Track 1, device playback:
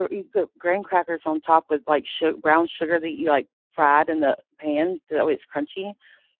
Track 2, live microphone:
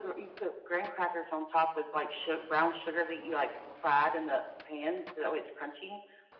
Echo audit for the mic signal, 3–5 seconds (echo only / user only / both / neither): echo only